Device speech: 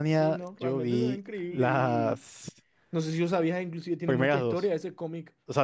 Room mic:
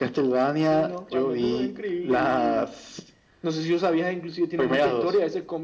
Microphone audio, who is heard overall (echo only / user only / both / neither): echo only